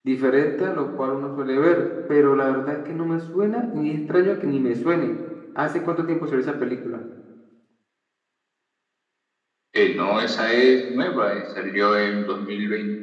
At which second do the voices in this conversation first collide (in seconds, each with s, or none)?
none